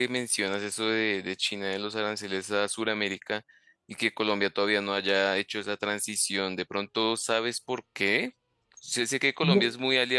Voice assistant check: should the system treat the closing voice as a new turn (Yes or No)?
No